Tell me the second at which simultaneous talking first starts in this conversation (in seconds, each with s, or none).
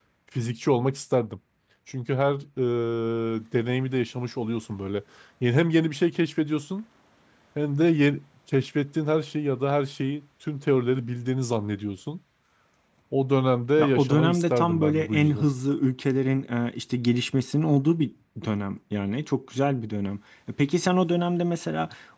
13.8 s